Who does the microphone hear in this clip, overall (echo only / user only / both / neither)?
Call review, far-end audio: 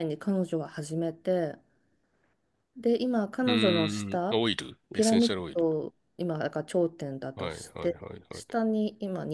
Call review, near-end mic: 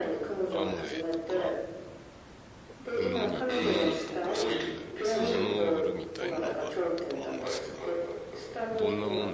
both